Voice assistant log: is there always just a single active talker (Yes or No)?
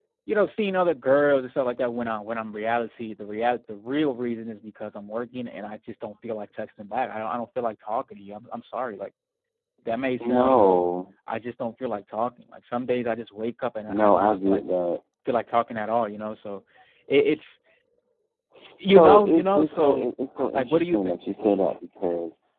No